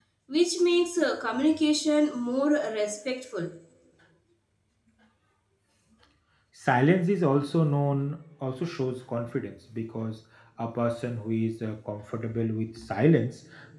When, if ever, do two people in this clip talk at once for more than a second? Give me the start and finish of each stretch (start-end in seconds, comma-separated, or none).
none